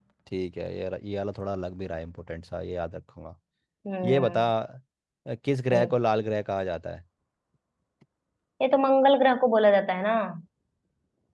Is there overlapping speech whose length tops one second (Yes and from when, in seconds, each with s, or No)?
No